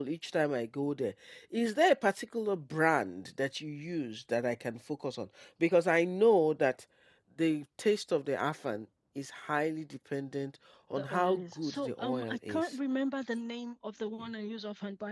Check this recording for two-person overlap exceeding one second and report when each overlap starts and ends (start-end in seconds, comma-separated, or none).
10.9-12.7